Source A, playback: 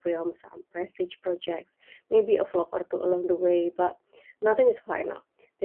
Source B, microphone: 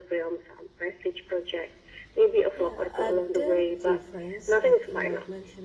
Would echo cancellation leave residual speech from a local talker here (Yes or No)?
Yes